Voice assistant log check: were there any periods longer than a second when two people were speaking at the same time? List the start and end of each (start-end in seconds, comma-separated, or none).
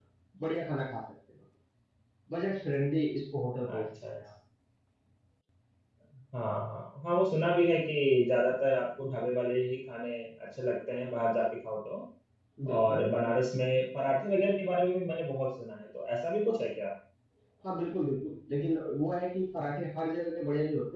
none